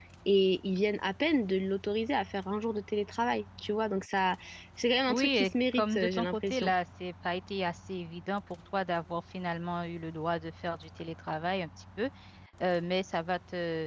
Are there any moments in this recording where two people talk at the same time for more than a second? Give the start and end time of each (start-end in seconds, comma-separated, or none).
5.1-6.7